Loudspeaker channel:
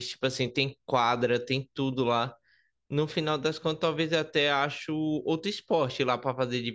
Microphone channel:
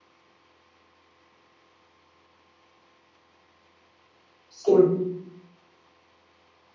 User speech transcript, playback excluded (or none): Sim,